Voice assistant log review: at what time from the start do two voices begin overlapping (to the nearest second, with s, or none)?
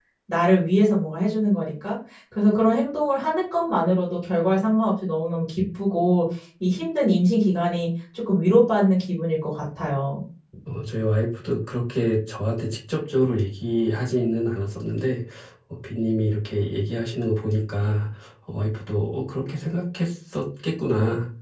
none